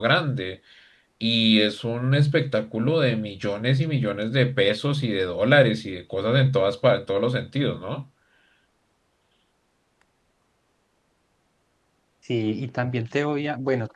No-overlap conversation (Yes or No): Yes